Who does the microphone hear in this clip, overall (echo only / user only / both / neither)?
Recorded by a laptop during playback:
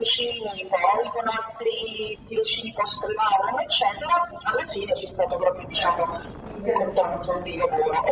both